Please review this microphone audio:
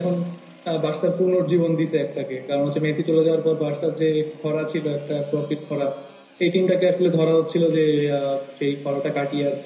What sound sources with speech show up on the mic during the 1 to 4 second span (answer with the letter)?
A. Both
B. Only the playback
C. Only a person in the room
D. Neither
B